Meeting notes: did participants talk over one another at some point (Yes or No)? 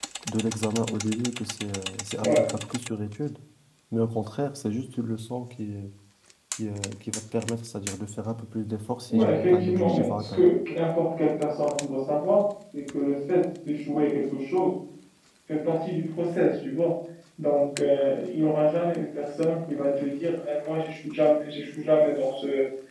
Yes